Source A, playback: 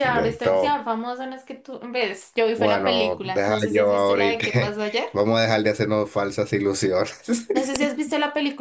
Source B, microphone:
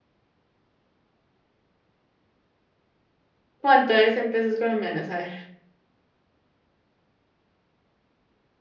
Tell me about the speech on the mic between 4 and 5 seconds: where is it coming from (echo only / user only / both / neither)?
user only